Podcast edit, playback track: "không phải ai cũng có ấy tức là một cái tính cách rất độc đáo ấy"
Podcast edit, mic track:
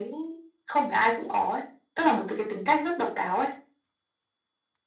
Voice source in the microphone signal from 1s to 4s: echo only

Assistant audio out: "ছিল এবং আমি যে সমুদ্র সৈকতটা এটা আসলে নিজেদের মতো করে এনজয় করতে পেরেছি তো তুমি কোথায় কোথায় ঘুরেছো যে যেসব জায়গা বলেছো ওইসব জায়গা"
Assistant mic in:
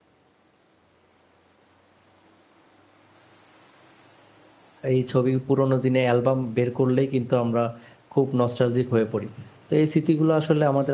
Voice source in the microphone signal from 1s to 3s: neither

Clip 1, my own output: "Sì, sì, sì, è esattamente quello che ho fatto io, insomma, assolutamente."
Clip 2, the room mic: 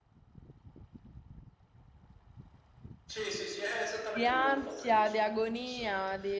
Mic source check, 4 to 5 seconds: both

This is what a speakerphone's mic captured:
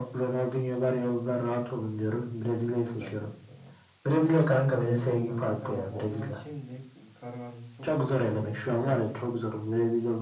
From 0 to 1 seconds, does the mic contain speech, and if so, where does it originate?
echo only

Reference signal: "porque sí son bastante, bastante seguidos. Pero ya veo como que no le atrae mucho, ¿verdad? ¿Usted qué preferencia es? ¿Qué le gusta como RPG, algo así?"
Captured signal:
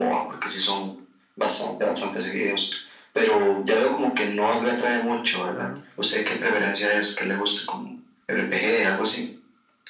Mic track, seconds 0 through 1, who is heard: echo only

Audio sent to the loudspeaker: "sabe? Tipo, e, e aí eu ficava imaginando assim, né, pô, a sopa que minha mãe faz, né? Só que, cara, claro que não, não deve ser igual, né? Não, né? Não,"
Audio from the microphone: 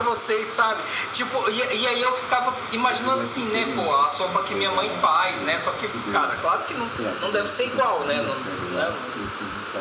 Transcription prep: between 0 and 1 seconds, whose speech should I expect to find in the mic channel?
echo only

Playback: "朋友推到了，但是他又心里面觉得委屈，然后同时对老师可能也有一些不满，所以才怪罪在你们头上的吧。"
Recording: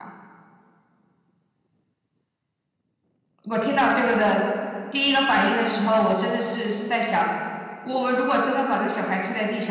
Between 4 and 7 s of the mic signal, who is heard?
user only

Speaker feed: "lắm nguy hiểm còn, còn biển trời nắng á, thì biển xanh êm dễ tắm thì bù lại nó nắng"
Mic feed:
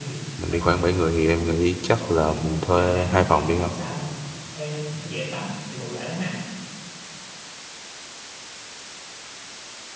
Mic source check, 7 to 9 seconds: neither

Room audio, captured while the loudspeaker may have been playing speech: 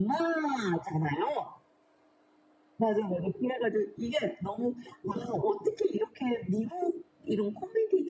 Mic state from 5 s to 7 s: echo only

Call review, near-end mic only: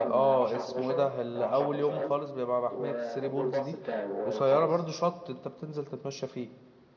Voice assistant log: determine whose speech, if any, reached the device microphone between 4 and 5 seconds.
both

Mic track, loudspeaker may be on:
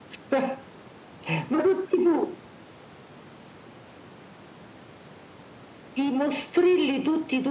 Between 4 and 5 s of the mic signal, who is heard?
neither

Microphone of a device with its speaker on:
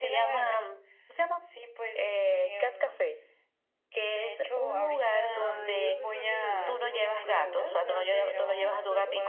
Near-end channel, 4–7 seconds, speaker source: both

